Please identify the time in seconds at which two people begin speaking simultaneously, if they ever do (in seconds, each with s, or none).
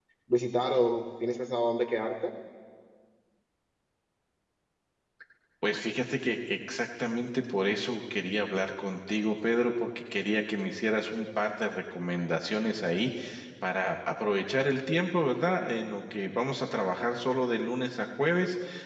none